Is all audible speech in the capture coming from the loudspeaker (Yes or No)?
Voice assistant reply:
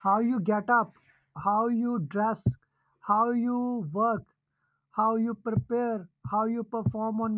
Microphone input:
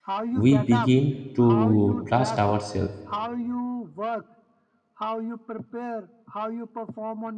No